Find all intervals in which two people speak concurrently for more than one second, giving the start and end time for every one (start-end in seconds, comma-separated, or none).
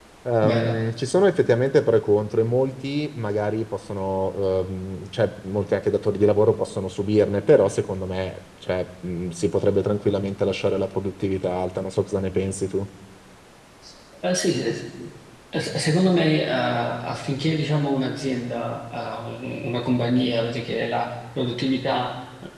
none